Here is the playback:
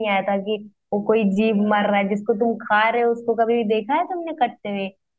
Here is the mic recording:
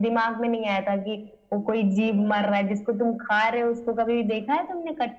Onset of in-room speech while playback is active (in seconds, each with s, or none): none